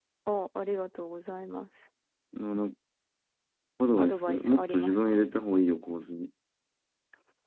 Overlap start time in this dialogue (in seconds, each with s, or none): 4.0 s